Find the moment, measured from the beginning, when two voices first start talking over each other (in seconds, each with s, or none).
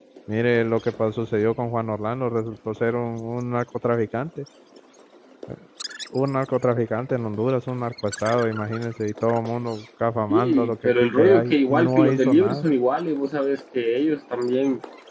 10.3 s